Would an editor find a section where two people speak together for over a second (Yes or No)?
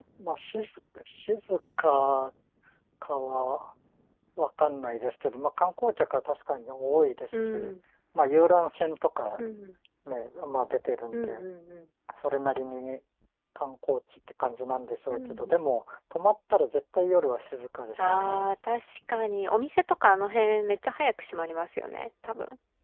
No